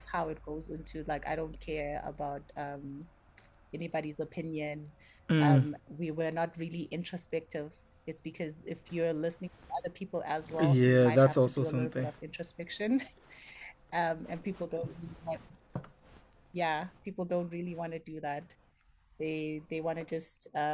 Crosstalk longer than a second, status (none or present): present